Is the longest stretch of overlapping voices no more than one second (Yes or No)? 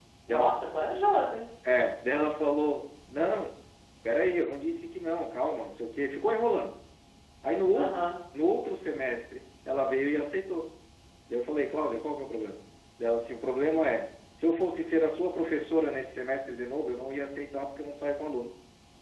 Yes